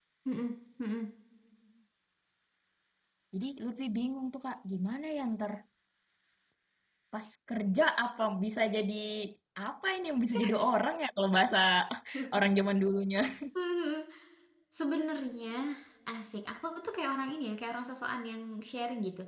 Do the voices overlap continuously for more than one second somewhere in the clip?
No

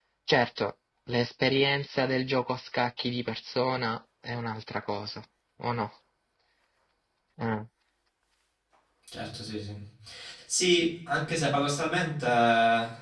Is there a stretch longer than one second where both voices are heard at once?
No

